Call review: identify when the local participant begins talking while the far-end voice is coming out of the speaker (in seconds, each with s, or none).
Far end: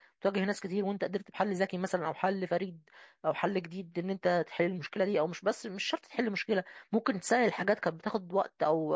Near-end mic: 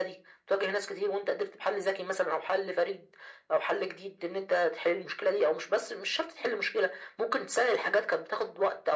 none